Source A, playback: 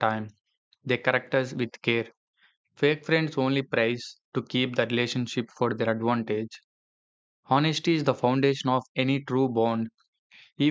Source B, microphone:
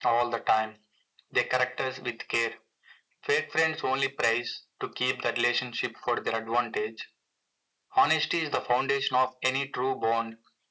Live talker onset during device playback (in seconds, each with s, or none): none